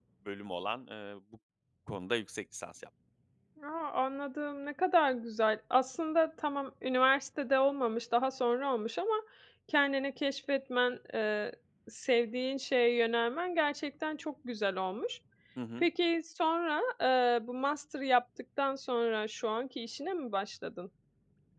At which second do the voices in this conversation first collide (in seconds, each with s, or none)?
none